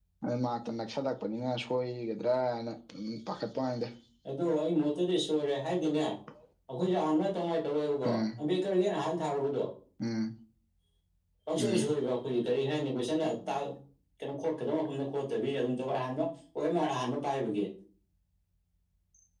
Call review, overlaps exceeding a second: none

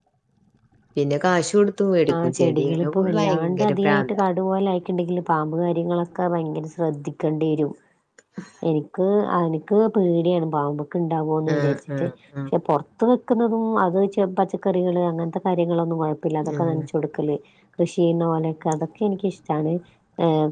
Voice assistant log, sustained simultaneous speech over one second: present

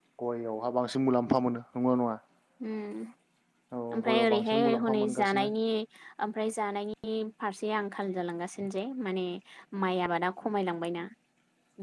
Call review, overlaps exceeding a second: present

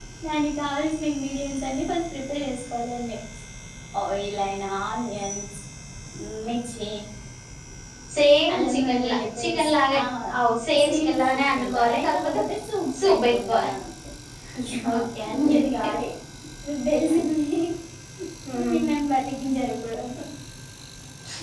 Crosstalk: present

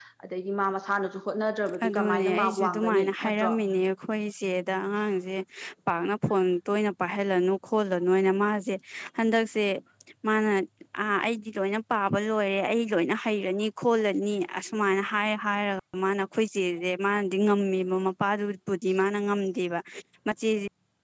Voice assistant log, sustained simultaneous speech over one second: present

